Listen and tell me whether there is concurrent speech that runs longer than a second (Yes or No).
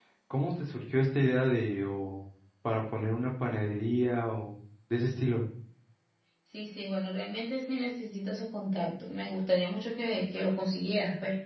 No